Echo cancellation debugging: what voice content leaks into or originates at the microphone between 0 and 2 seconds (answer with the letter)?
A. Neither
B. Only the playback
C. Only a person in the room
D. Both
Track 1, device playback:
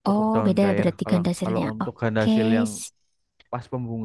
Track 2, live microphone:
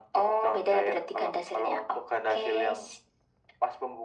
B